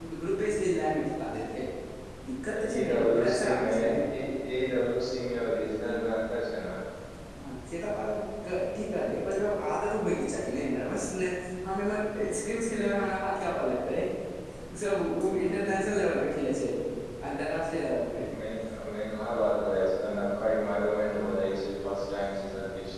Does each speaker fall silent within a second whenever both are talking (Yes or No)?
No